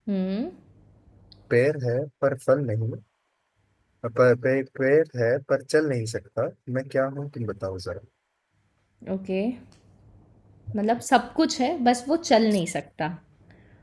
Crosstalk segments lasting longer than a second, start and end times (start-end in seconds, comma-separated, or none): none